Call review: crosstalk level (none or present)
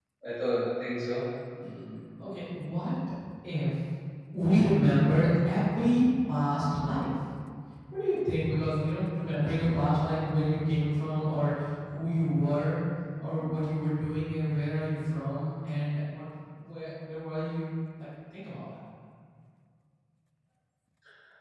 none